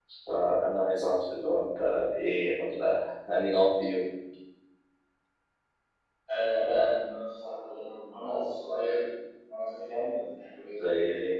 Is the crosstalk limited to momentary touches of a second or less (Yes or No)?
Yes